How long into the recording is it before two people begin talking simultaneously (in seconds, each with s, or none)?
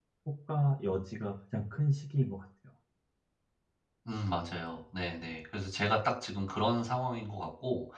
none